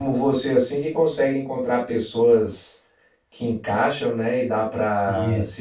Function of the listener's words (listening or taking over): listening